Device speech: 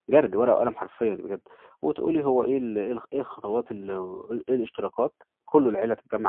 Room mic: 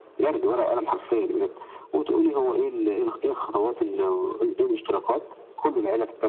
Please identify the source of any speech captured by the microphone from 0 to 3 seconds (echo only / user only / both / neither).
echo only